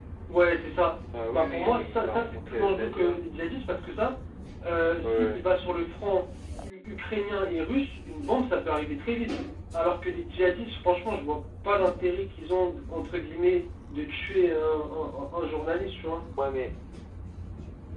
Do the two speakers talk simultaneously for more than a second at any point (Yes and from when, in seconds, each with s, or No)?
Yes, from 1.3 s